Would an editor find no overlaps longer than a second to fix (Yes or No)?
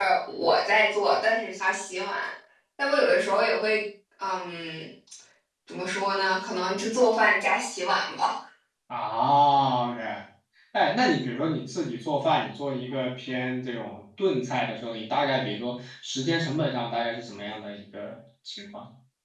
Yes